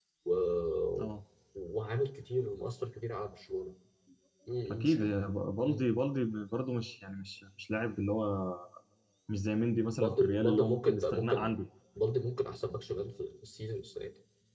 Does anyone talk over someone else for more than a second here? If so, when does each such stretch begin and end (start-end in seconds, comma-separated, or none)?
9.9-11.5